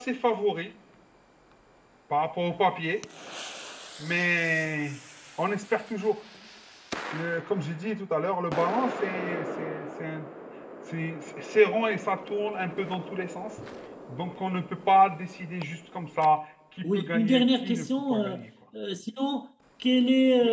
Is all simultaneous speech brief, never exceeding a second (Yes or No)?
No